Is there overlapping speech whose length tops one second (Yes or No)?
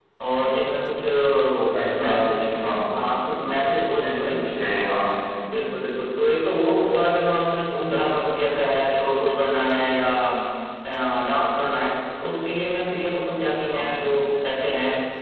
No